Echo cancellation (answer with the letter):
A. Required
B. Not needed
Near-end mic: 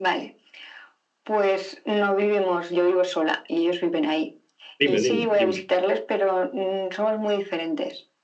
A